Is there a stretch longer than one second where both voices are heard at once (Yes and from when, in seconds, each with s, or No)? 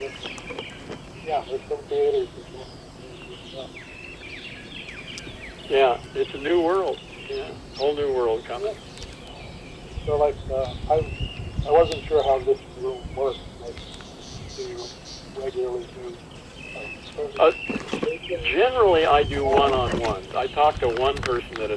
No